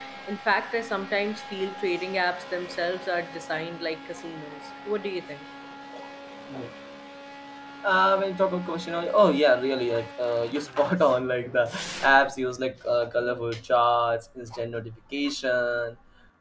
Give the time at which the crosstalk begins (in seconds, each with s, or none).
none